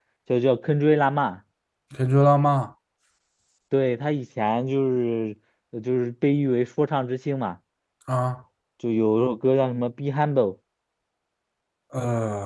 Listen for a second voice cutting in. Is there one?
No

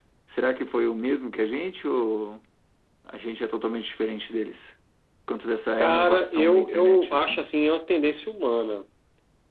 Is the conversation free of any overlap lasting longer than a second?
No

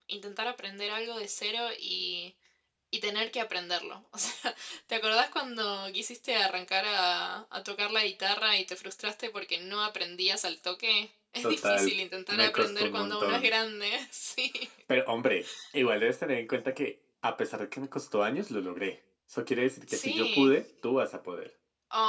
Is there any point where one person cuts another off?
Yes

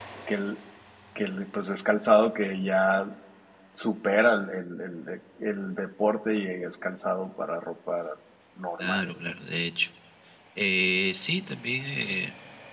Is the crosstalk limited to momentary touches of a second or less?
Yes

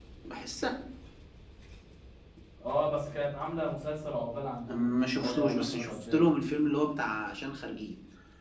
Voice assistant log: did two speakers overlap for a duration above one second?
Yes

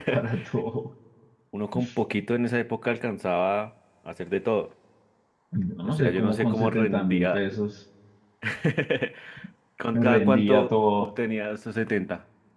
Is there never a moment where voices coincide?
No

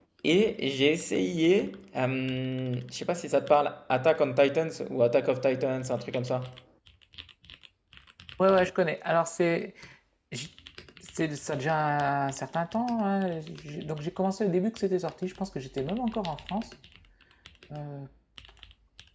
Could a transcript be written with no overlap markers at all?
Yes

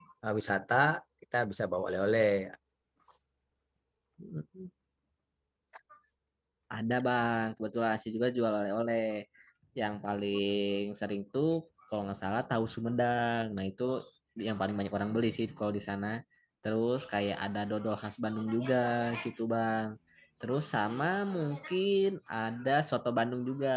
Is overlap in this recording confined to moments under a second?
Yes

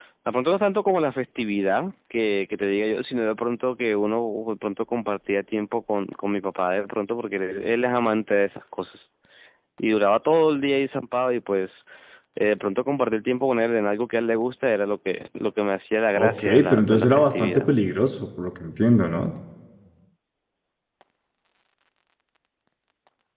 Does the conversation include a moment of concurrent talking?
Yes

